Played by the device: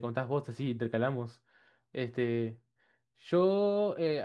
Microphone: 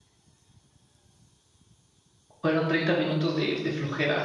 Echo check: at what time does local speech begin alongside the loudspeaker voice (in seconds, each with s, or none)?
2.4 s